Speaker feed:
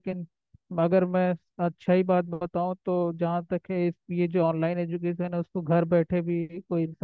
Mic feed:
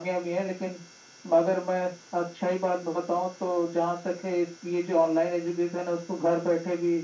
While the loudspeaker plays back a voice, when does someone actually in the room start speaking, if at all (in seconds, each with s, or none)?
none